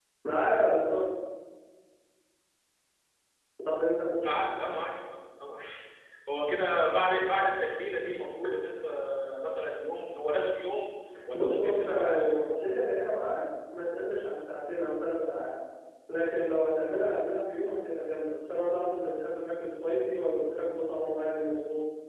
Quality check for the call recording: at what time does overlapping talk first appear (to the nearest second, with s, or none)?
11 s